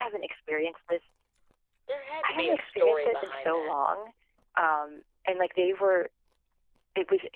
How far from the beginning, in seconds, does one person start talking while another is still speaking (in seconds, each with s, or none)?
2.2 s